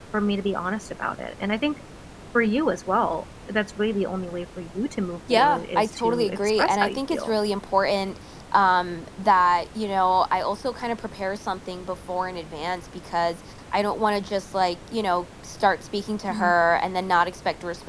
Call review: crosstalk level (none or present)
present